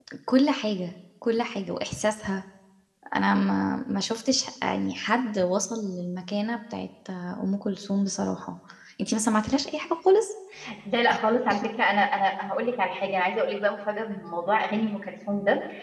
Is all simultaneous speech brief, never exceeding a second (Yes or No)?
Yes